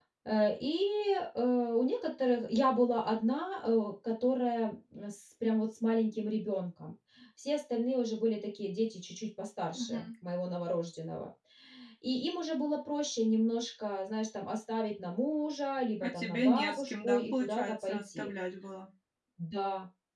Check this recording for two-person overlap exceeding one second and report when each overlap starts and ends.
16.0-18.3

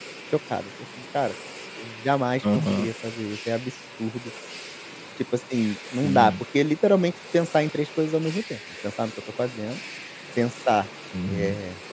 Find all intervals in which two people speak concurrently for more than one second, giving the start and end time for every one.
none

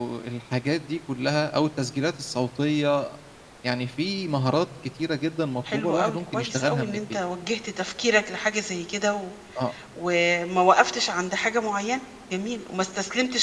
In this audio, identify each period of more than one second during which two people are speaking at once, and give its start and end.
5.7-7.0

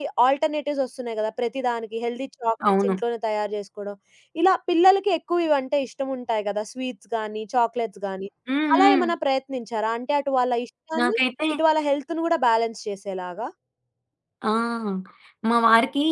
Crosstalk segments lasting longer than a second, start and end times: none

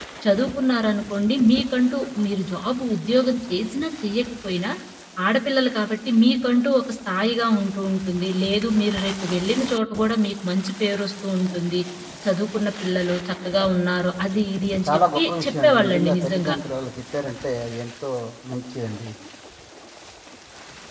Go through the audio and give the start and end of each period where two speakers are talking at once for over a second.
14.9-16.6

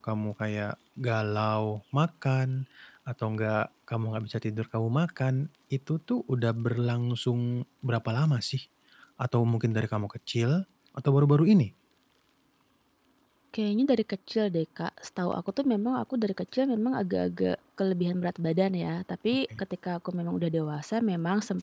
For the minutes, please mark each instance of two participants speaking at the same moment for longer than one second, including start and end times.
none

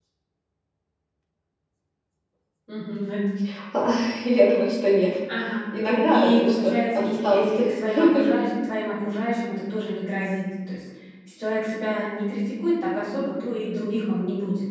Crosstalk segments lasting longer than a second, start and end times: 6.1-7.6

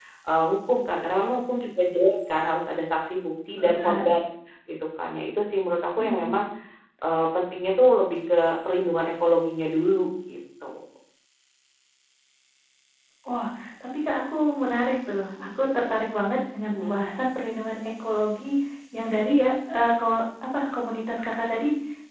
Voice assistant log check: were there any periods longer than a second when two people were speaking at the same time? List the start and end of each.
none

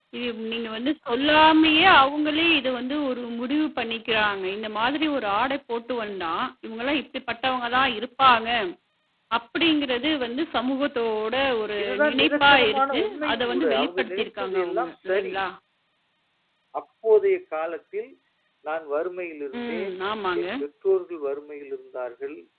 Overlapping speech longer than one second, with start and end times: 11.8-15.3

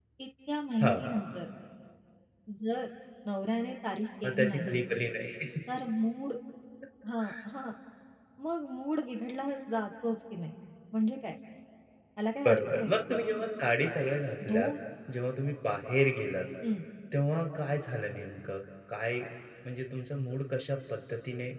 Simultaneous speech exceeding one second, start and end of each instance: none

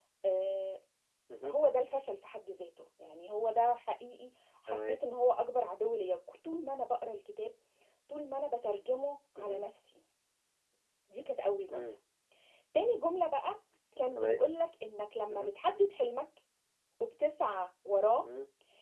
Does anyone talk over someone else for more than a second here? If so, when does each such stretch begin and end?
none

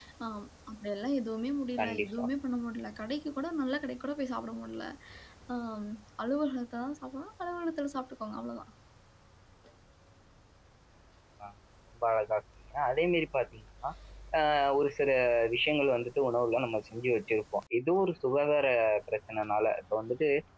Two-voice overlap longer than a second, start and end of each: none

